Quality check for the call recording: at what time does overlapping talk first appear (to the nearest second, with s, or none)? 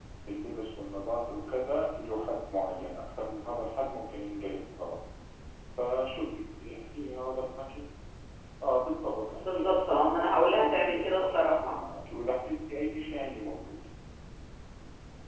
9 s